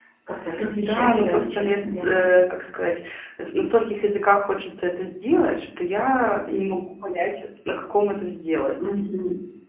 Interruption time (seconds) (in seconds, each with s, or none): 0.8 s